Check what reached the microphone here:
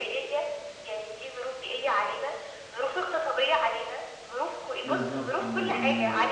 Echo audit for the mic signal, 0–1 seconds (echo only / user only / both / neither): echo only